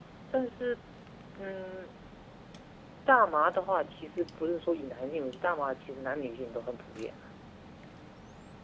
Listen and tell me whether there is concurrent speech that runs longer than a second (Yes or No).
No